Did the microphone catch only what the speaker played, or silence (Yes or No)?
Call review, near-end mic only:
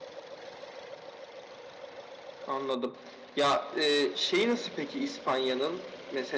Yes